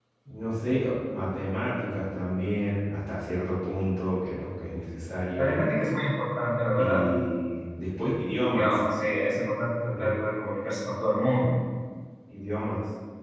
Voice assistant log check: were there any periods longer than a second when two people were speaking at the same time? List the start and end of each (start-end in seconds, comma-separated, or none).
none